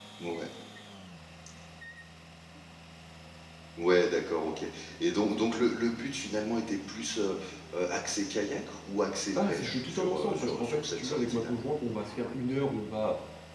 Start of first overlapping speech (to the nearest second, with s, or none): 9 s